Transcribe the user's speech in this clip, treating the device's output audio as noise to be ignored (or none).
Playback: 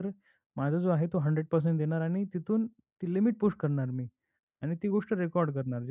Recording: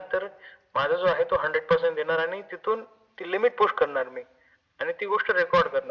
none